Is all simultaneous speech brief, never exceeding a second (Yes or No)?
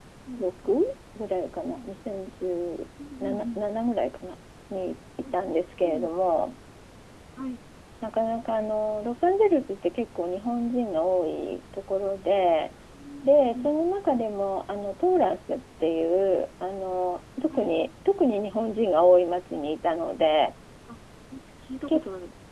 Yes